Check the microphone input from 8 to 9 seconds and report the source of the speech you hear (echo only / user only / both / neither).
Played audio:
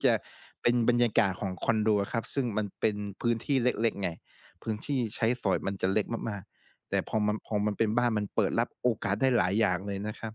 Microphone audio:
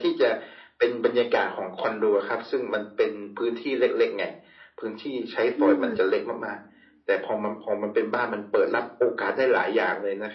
echo only